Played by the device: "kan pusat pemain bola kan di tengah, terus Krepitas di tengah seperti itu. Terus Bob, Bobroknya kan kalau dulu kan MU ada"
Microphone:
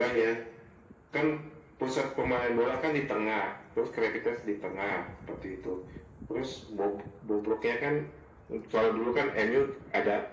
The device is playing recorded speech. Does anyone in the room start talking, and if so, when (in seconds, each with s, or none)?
none